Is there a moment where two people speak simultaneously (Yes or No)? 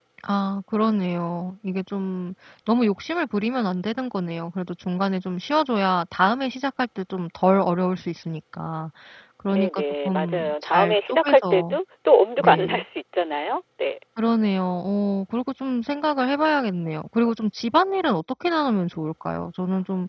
Yes